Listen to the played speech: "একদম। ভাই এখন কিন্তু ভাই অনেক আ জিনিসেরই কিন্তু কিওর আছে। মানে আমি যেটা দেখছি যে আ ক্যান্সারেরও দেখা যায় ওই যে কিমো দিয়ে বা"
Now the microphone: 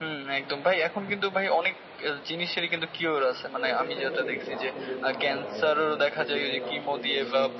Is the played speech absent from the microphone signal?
No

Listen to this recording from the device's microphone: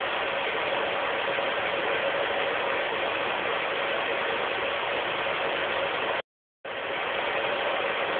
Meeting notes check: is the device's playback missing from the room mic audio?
Yes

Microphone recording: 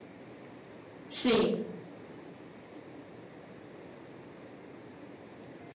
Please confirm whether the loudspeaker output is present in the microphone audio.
No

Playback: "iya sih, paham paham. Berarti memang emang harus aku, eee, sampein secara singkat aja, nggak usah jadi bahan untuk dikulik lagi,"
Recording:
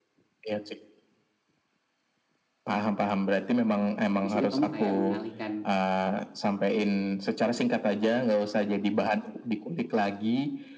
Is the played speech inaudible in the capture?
No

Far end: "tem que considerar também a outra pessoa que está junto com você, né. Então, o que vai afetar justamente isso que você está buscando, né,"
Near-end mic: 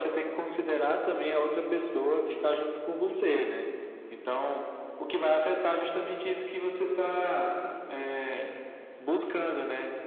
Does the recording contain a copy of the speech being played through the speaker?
Yes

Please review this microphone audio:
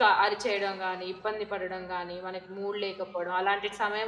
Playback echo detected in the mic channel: No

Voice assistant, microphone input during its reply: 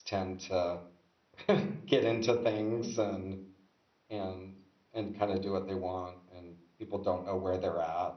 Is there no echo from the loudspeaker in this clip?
Yes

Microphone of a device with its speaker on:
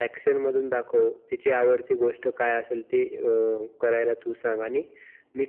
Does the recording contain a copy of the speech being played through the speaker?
Yes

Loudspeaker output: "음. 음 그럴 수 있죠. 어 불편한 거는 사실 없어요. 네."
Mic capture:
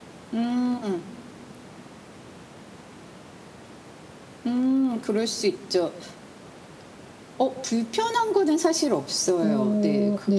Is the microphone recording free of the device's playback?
No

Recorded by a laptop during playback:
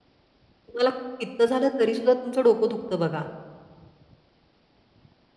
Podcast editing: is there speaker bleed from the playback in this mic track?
No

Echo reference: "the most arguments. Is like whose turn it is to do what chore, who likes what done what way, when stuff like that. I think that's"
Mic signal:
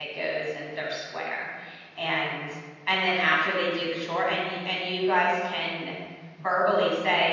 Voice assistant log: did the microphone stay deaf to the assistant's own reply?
Yes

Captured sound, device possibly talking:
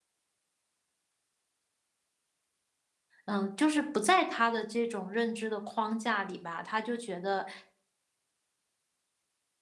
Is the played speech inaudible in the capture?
Yes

